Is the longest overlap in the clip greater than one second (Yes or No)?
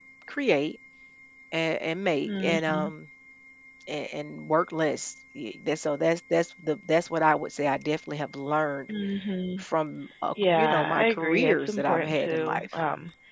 Yes